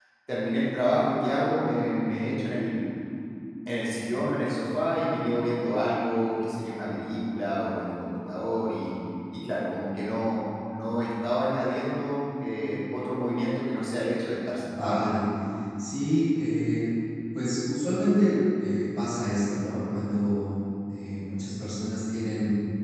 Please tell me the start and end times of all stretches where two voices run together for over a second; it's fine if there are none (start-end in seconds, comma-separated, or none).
none